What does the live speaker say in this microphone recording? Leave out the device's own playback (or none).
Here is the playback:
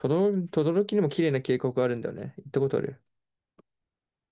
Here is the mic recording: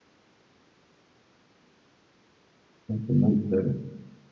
あとなんだろ